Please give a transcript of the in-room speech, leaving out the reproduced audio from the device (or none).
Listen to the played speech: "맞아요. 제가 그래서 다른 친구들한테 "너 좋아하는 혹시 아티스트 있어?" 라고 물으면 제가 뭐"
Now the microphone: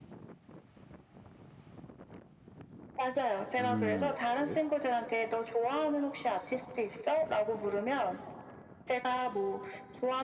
음. 네.